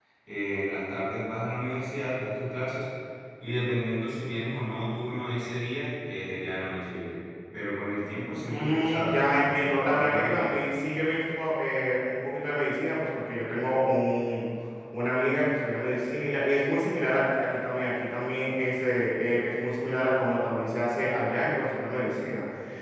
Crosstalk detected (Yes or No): Yes